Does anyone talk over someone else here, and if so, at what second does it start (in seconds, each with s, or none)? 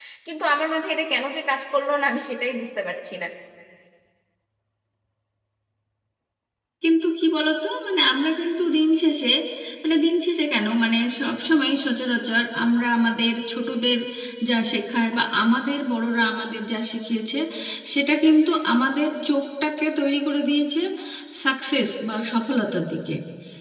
none